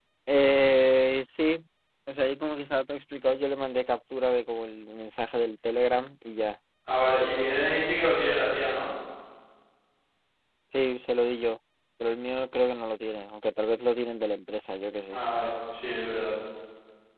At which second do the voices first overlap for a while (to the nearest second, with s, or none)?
none